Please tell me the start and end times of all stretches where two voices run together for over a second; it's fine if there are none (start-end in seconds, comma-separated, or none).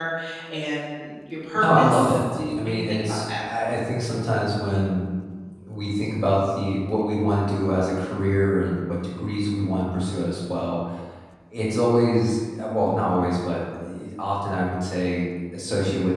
1.6-3.2